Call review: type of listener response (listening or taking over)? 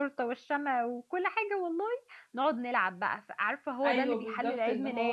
taking over